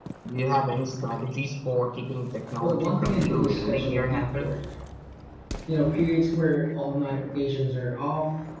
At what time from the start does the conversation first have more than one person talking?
3 s

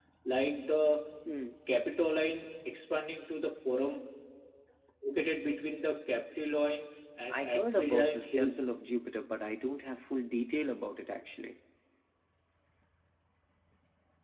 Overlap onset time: 7 s

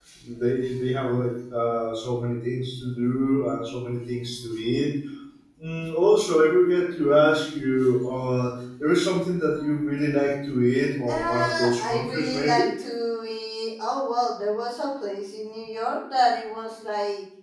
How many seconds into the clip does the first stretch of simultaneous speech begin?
11 s

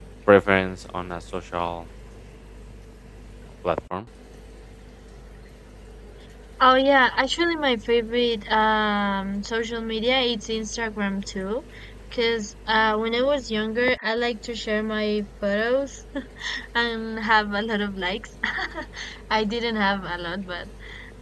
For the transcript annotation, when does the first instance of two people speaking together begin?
none

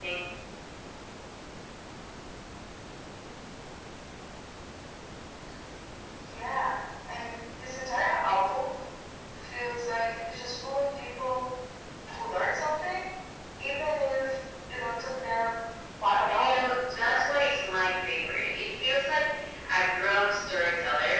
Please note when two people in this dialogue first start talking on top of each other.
16 s

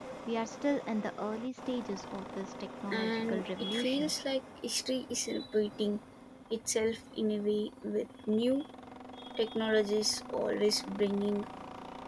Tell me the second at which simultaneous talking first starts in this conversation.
3 s

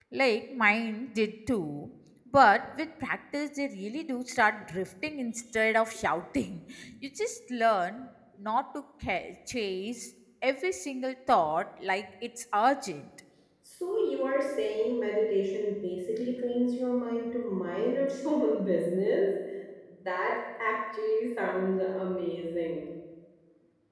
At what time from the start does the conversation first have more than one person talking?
none

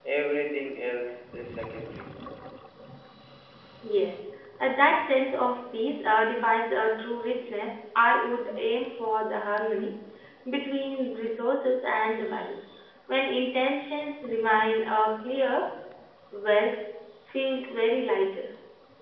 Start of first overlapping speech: none

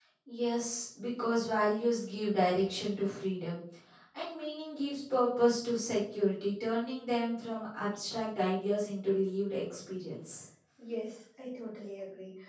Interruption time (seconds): none

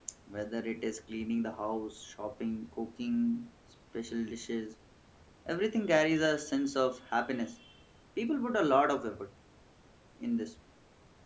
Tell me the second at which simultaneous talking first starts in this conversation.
none

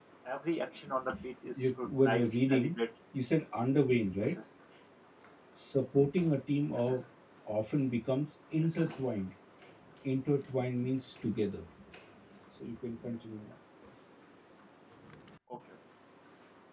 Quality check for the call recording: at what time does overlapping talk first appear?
1 s

